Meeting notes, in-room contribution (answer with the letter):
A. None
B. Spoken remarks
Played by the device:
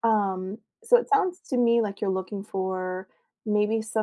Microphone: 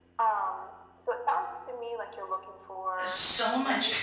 B